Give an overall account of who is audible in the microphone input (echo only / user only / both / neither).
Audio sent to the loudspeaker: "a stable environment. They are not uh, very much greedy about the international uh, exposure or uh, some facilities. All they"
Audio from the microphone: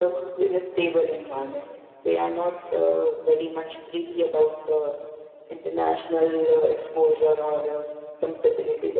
echo only